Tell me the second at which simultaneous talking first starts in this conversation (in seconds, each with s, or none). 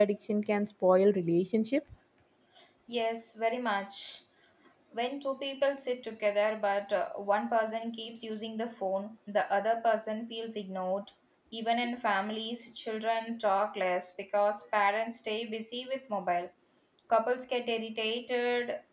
none